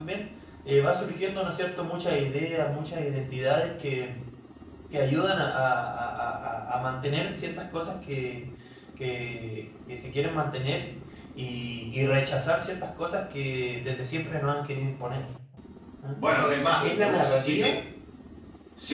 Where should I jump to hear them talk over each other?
16.1 s

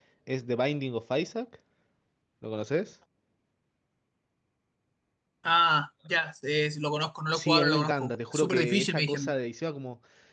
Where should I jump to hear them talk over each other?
7.3 s

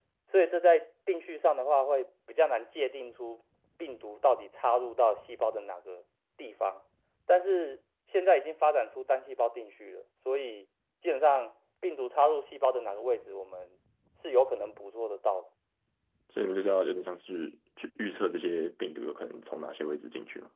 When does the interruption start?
none

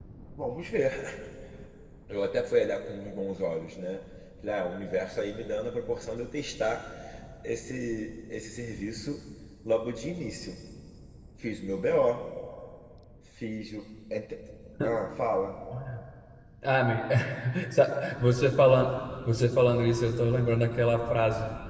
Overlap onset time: none

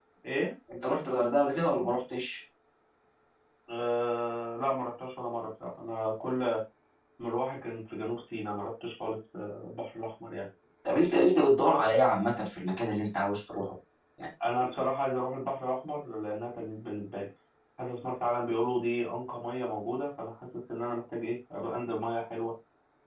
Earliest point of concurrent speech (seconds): none

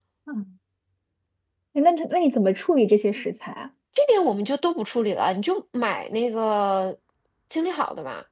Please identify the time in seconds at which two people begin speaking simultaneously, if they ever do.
none

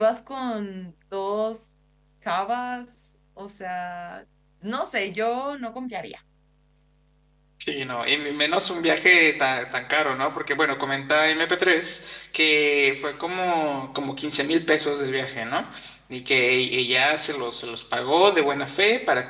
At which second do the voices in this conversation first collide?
none

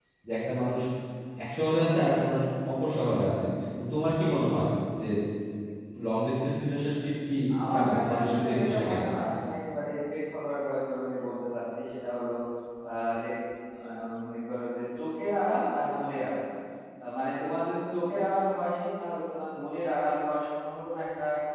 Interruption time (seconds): 7.5 s

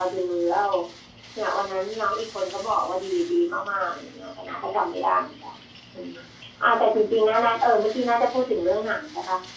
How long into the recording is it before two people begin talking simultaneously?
none

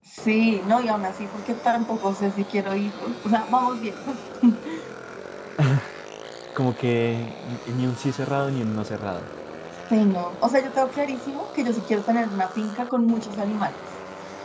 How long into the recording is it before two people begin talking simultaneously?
none

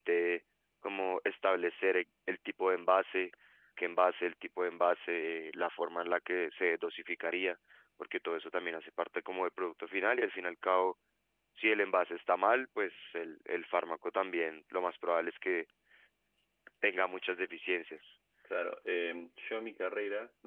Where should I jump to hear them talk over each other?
none

